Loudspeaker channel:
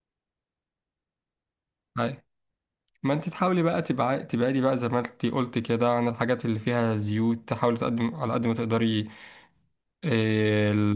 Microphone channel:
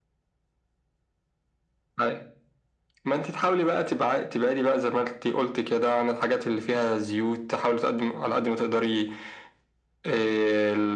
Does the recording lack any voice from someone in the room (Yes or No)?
Yes